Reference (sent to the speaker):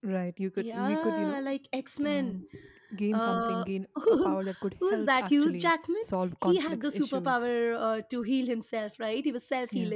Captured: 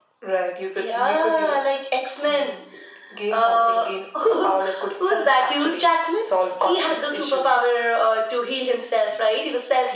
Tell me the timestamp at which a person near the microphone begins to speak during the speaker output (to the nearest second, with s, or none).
none